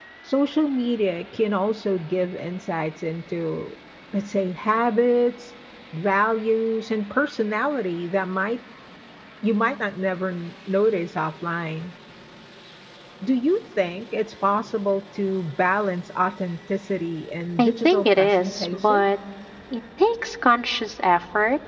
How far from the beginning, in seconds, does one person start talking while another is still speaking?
17.6 s

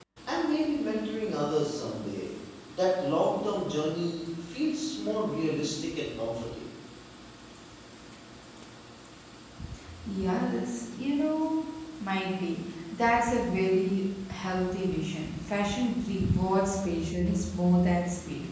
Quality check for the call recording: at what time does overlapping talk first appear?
none

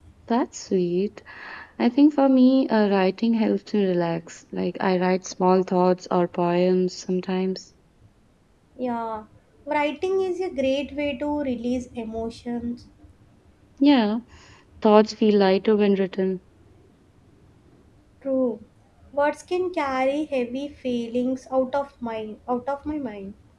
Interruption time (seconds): none

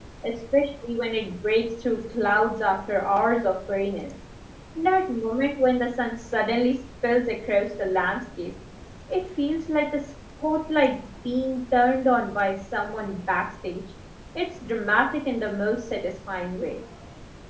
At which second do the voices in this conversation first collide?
none

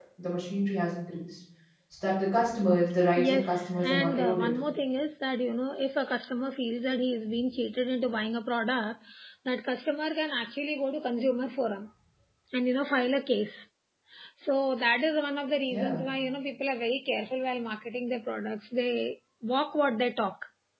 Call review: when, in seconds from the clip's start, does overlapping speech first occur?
3.2 s

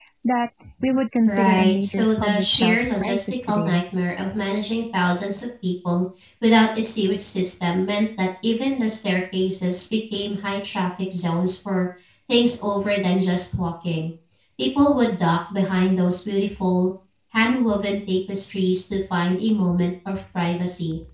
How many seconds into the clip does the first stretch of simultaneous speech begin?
1.2 s

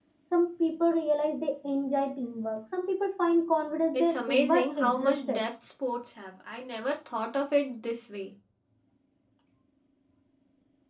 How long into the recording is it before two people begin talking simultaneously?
3.9 s

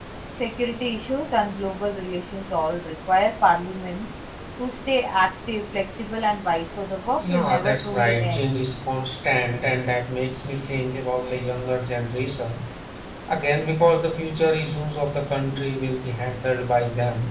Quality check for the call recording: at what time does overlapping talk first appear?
7.2 s

